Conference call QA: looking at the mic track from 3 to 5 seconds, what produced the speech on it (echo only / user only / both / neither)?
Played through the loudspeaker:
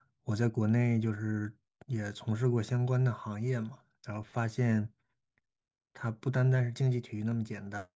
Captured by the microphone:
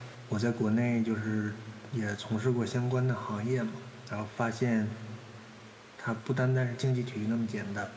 echo only